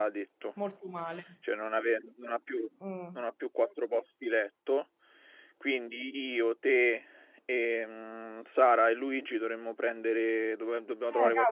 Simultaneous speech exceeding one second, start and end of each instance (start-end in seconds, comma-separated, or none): none